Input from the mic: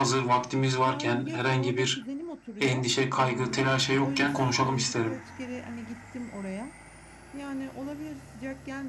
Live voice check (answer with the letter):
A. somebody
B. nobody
A